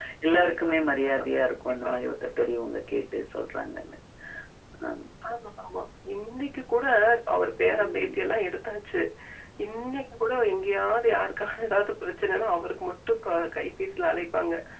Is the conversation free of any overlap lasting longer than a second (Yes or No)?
No